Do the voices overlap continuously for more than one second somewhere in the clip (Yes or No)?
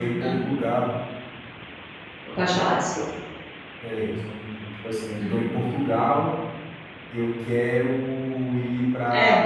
No